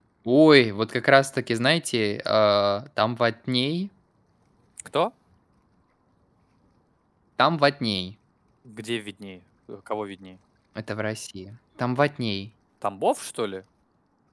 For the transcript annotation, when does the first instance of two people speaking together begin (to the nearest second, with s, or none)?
none